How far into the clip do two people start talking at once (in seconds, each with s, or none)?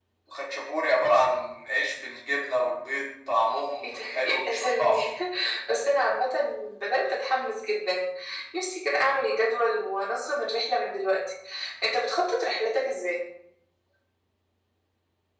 3.8 s